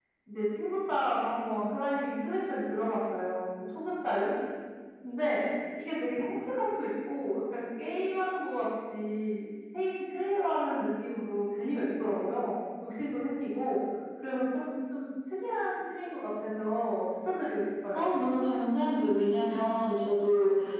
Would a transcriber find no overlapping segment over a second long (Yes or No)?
Yes